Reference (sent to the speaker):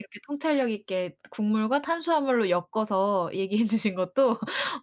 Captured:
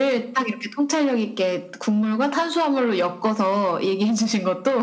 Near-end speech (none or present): none